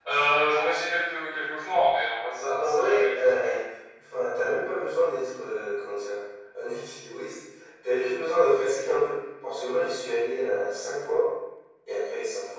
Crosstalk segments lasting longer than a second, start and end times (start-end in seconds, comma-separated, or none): 2.3-3.5